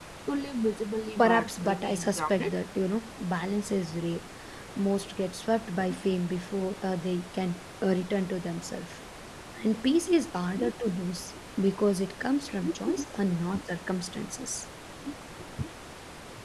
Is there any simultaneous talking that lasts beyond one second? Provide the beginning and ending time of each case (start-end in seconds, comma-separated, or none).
1.2-2.5